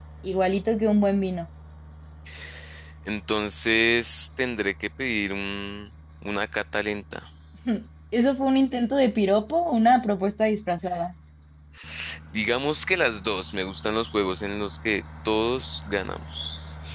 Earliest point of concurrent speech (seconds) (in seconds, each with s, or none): none